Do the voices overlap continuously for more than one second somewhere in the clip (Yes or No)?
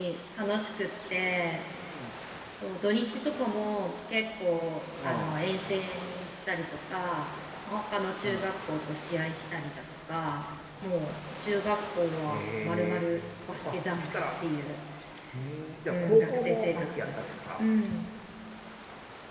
Yes